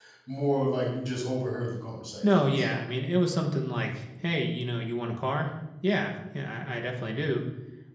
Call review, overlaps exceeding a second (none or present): none